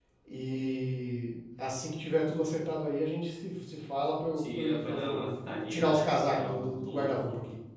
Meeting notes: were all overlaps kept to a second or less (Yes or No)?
No